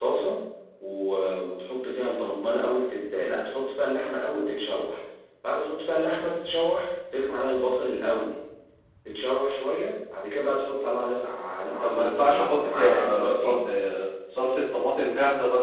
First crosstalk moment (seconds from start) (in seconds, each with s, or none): 11.8 s